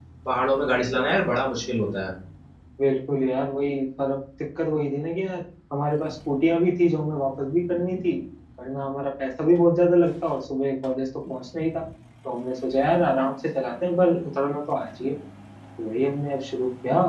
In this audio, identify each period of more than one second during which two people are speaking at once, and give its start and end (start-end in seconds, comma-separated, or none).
none